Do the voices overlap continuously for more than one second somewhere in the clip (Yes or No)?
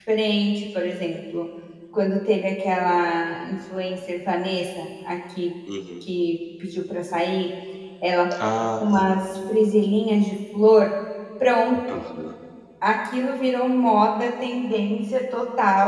No